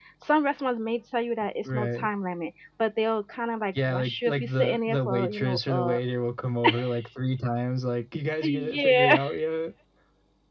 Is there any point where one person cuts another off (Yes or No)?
Yes